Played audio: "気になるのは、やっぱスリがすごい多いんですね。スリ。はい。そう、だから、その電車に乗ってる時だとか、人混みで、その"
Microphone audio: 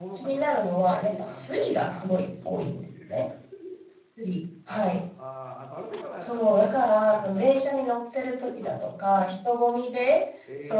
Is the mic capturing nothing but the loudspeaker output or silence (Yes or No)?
No